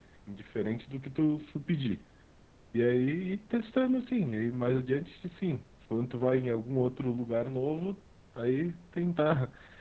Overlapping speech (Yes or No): No